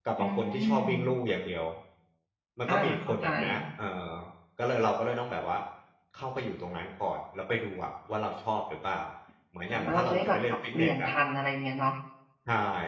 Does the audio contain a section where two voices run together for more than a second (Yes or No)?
Yes